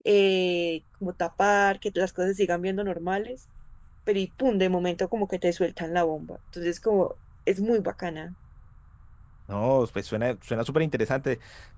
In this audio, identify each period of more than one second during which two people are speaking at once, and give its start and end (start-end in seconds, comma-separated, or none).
none